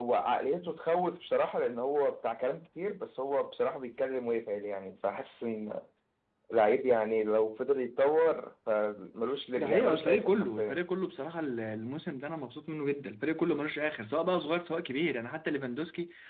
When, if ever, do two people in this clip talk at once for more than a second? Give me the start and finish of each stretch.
9.6-10.8

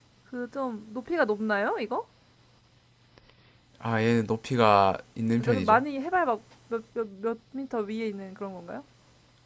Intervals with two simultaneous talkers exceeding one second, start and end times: none

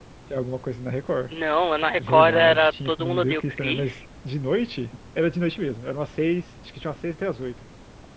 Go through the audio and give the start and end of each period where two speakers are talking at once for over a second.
2.0-4.0

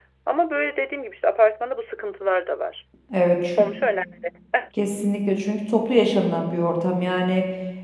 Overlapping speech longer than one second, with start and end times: none

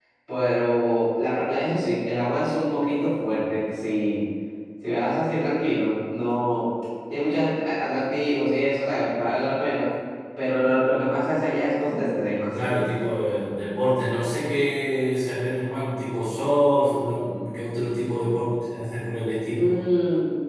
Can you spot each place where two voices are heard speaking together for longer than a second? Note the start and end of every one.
none

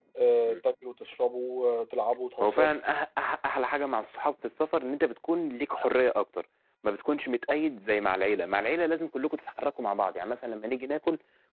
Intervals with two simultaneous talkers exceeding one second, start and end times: none

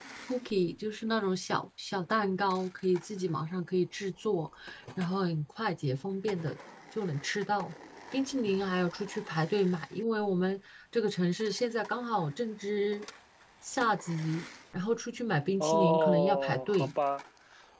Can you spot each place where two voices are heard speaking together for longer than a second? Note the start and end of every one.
15.6-16.9

